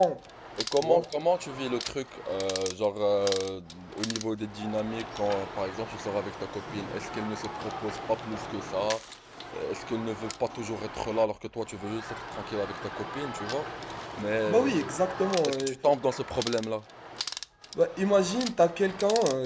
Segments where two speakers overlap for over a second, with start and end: none

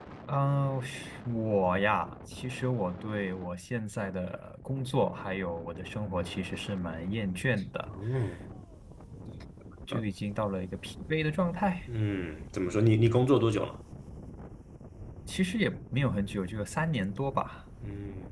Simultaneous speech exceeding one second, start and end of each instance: none

